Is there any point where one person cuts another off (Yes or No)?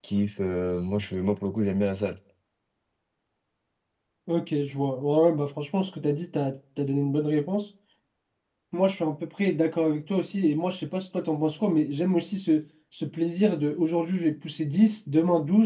No